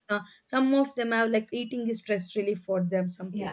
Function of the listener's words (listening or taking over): taking over